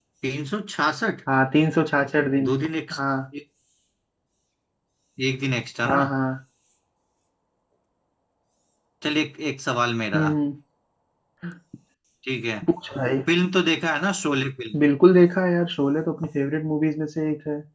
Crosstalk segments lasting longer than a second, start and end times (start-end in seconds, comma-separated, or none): none